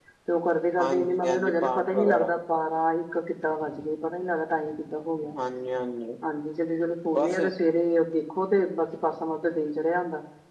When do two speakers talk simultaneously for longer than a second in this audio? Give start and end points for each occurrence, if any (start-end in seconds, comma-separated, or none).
0.8-2.3